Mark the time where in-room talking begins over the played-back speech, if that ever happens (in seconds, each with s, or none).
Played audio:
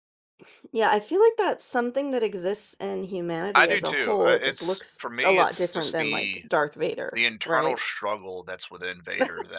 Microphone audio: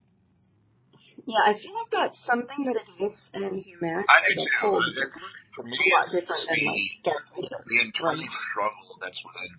none